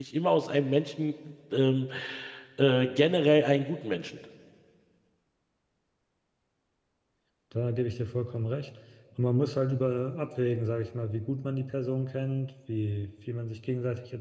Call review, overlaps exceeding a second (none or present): none